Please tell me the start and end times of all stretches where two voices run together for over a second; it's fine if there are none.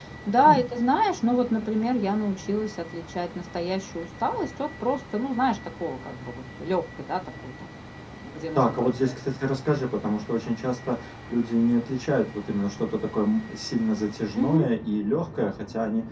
none

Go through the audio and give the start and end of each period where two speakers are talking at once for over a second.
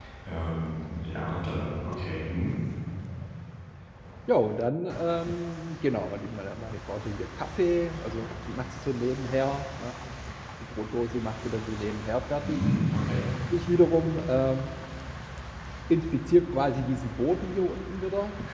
none

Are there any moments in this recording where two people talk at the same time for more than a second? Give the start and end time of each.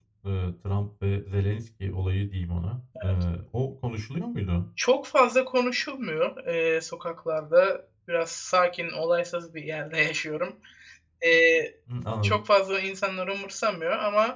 none

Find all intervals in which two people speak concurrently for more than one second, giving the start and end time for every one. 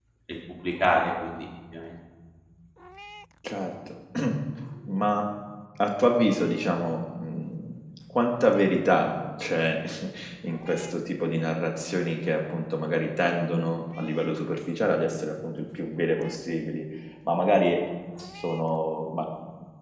none

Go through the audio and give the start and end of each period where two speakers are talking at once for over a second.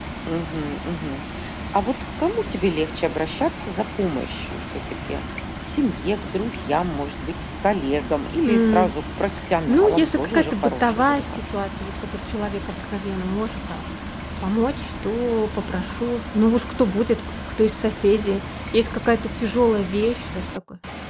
9.7-11.3

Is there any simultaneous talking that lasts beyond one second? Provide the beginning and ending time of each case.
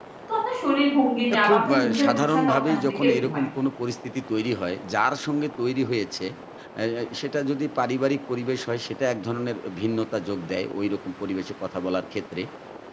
1.3-3.4

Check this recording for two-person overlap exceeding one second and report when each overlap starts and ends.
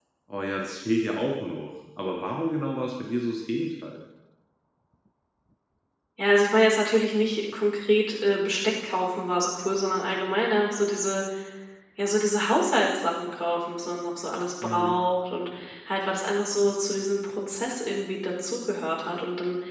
none

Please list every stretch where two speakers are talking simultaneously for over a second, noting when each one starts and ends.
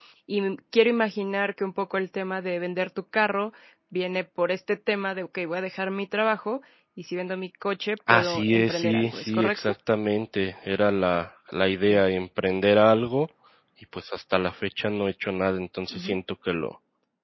8.1-9.7

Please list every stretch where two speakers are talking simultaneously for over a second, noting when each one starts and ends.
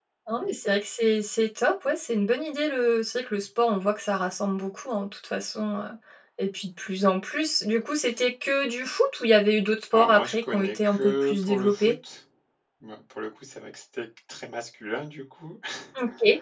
9.9-11.9

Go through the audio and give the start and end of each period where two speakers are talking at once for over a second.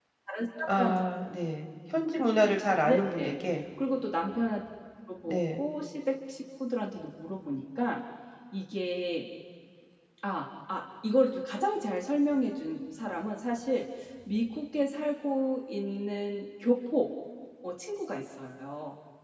none

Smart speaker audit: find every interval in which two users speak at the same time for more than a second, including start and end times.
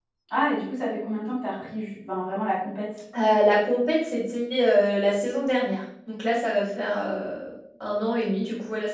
none

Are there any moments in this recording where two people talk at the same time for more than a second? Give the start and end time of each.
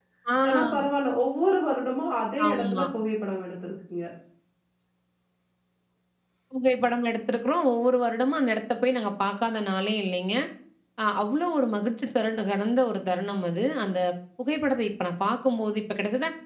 none

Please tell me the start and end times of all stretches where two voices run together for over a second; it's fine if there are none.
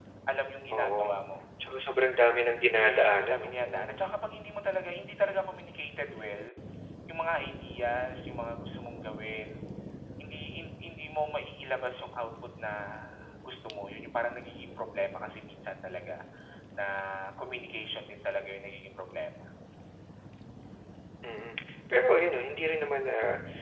2.7-4.0

